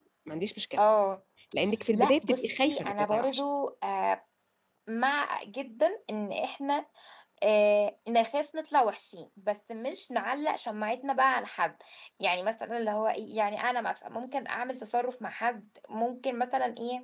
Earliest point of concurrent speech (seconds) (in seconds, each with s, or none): 1.9 s